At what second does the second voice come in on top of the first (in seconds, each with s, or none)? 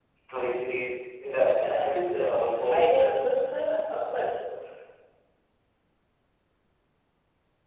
1.6 s